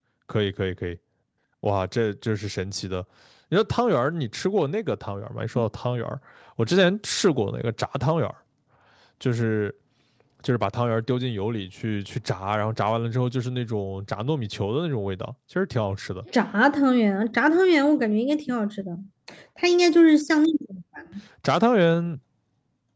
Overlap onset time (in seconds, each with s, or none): none